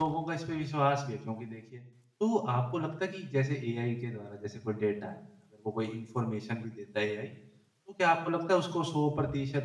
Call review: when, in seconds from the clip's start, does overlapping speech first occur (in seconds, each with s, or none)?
none